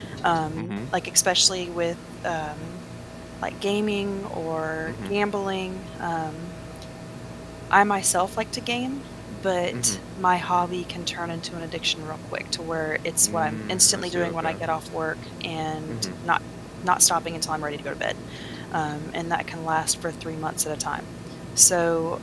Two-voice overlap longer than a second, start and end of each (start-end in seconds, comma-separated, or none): 13.2-14.6